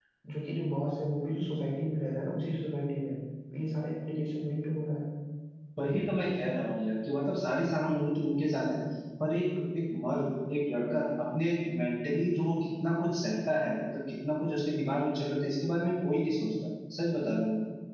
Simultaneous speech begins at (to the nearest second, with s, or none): none